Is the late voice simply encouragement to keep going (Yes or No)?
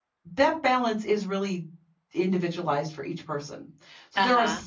Yes